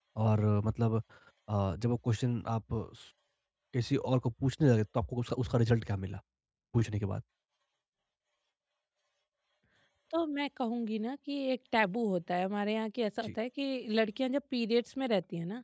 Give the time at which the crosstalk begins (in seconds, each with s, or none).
none